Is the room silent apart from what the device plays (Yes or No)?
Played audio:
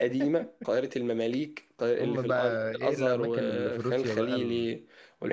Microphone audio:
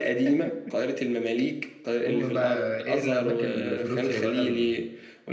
No